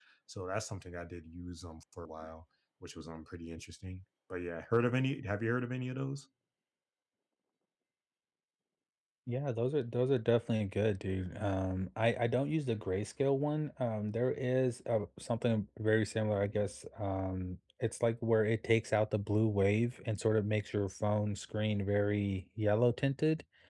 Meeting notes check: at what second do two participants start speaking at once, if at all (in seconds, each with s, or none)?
none